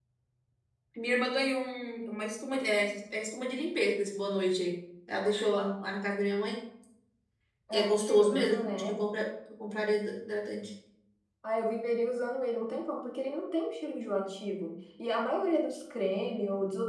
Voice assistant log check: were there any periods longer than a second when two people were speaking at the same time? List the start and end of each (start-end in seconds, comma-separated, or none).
7.7-9.0